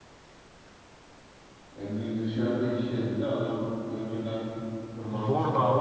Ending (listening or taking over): taking over